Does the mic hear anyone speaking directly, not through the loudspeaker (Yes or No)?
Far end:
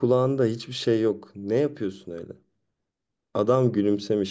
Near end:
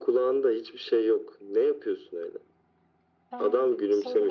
Yes